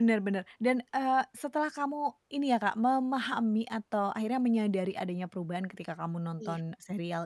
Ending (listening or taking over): listening